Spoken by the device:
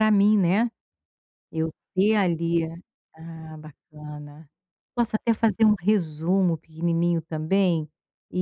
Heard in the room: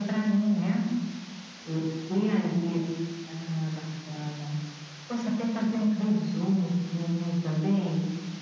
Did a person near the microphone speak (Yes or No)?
No